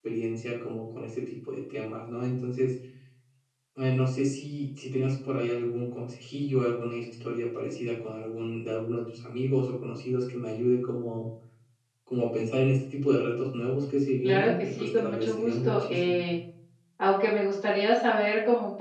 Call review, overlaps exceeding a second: present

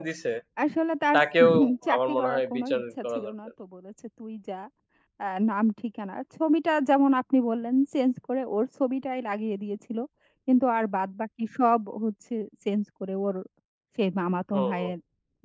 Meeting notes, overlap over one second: present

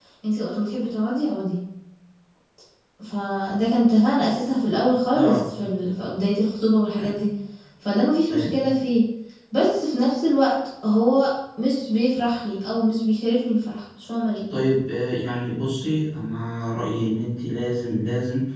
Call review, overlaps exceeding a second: none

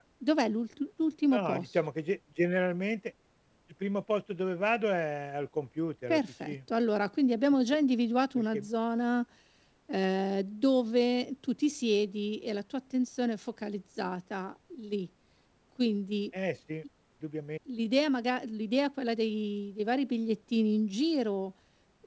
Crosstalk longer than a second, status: none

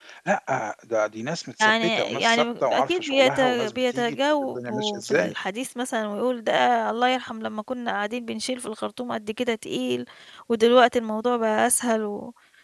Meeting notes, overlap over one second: present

